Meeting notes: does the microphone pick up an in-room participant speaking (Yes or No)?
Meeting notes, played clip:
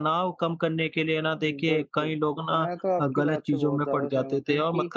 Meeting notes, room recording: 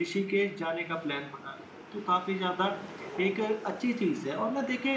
Yes